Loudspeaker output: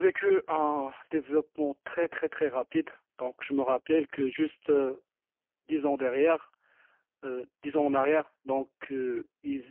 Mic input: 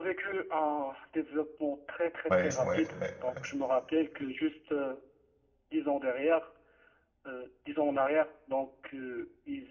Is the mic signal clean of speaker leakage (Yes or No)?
No